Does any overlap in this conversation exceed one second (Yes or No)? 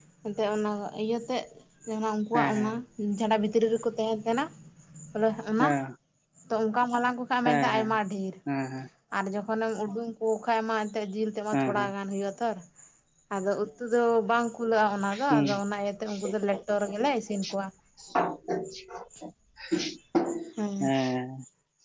No